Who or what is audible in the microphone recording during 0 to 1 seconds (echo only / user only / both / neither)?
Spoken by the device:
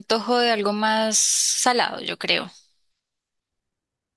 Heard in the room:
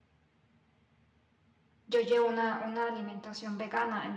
neither